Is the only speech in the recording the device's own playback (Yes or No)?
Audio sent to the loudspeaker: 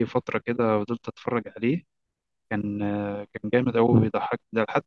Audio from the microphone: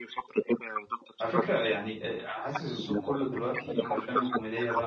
No